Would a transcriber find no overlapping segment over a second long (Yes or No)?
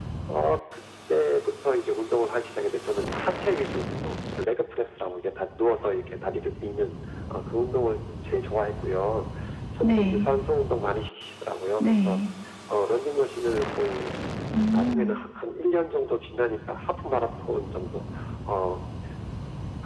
Yes